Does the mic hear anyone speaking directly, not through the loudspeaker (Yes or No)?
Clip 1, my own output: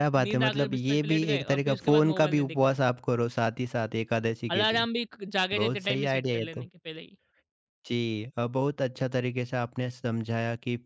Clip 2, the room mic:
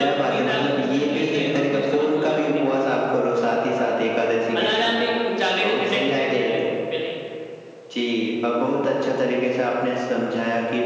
No